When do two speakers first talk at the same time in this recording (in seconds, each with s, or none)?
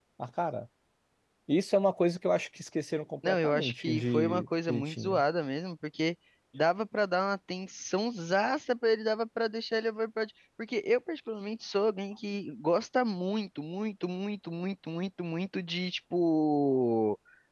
3.2 s